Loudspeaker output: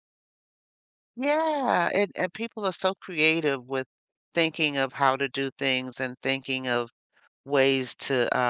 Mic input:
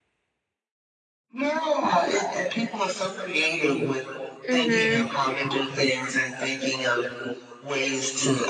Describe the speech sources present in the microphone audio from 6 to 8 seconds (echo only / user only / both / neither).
echo only